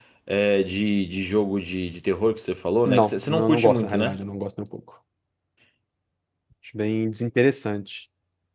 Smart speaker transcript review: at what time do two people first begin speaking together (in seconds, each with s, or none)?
2.8 s